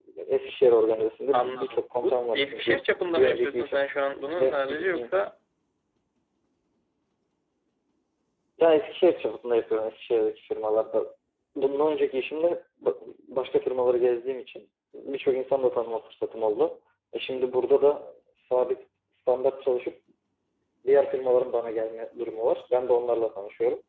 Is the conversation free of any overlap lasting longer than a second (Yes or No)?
No